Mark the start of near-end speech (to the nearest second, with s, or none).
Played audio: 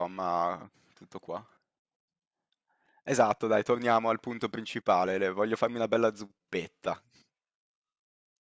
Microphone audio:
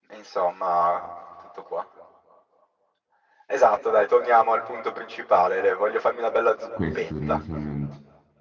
7 s